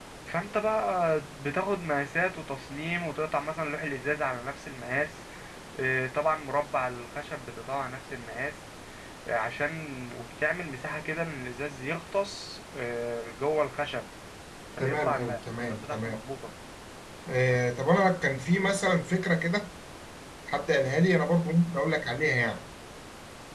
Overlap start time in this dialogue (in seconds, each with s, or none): 14.8 s